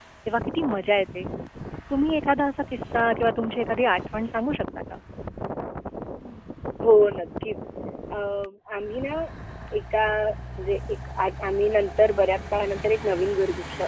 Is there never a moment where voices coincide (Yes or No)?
Yes